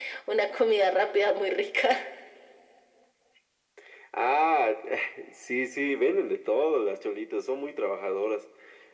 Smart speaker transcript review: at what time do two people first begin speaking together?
none

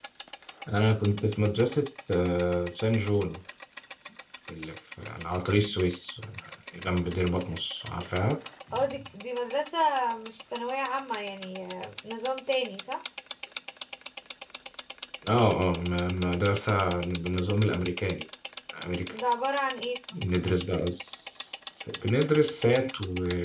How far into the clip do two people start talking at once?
none

